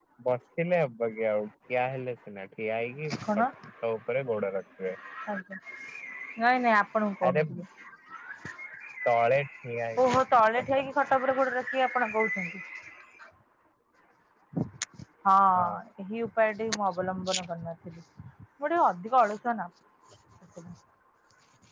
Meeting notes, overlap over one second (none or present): none